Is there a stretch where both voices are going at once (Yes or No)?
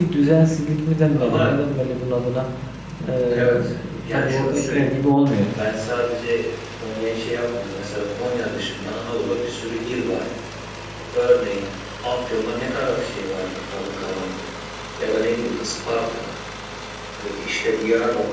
Yes